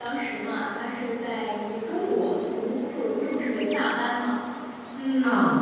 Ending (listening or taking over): listening